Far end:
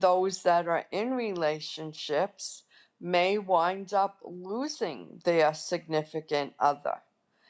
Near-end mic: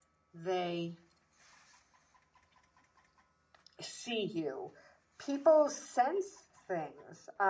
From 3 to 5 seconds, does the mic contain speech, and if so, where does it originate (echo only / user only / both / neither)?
user only